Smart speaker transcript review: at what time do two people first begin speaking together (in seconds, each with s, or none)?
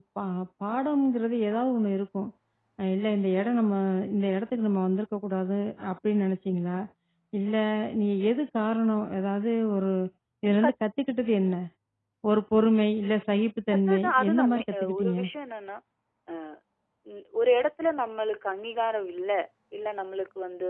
13.9 s